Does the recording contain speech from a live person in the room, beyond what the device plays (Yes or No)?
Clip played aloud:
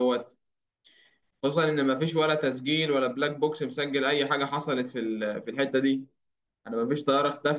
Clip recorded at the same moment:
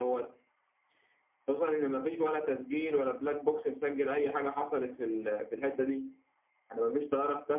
No